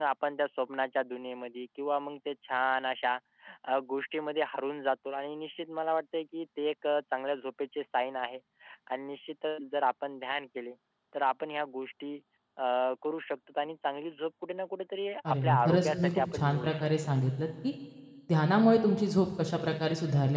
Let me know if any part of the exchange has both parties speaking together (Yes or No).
Yes